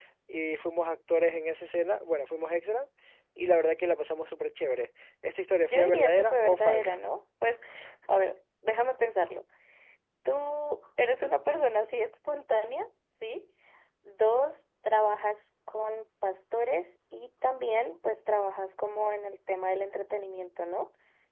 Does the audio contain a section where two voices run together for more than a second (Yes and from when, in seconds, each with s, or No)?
Yes, from 5.7 s